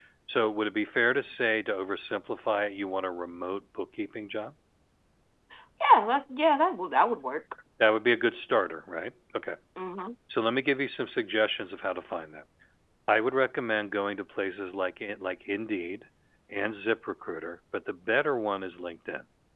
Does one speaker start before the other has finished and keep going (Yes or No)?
No